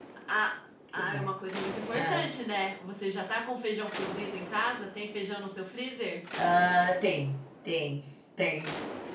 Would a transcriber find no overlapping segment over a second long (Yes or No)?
Yes